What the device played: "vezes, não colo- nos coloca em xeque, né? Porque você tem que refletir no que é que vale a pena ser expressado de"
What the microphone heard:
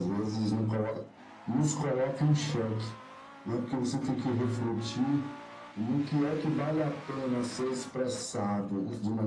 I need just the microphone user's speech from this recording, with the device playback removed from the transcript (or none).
none